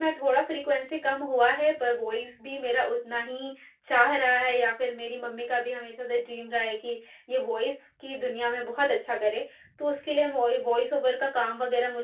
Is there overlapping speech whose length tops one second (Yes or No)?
No